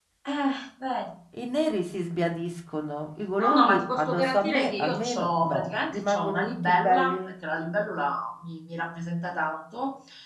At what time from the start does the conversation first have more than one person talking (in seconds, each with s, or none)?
3.4 s